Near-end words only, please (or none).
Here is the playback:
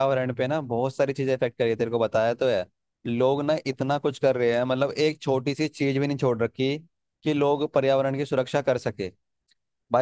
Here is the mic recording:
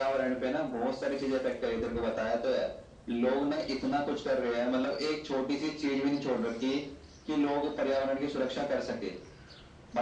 none